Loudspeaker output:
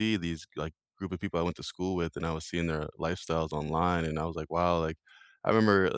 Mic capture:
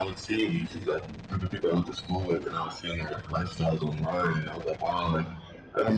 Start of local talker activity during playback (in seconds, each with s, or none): none